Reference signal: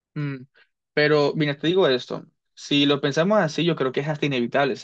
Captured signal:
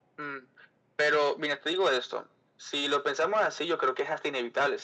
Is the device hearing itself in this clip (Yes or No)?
Yes